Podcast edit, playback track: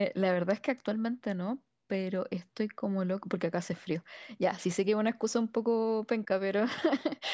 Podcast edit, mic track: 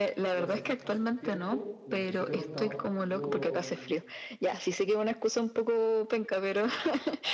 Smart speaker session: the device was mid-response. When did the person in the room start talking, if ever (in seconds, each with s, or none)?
0.3 s